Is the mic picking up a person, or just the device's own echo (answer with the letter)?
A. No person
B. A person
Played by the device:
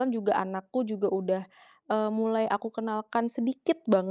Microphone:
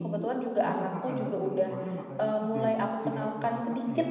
B